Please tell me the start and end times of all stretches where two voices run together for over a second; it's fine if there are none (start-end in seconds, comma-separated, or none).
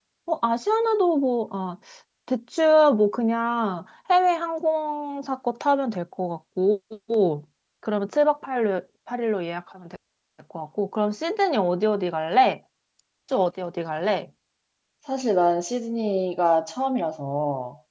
none